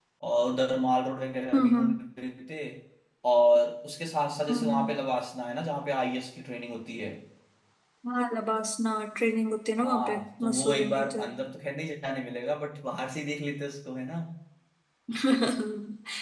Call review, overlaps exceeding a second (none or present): present